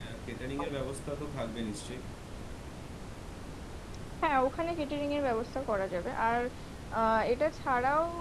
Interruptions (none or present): none